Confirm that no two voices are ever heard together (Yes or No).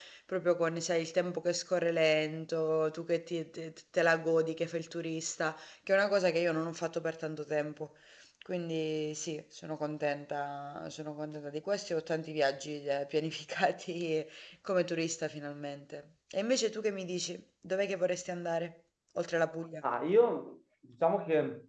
Yes